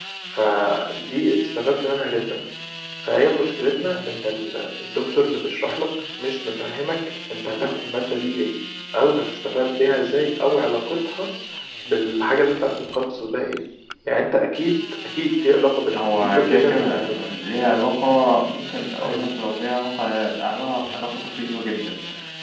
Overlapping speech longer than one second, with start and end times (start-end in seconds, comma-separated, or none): 16.0-17.2